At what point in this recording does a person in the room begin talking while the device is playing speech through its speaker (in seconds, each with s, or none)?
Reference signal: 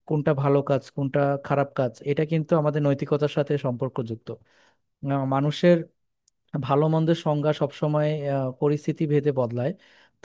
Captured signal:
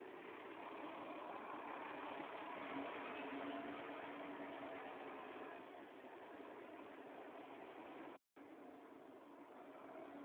none